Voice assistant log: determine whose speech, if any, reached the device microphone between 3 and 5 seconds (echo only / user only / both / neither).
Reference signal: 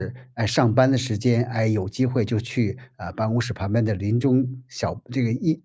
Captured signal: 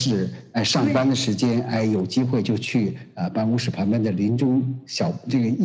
echo only